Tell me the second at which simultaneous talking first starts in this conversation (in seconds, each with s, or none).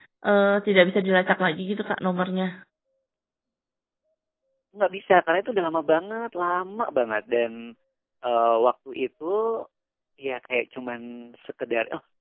none